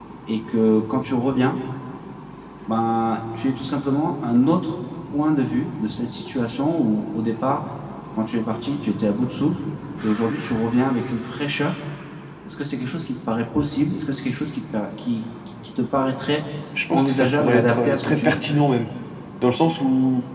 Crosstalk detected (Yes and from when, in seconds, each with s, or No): Yes, from 16.9 s